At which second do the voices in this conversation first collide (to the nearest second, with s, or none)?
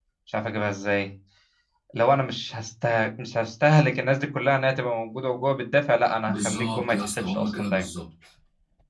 6 s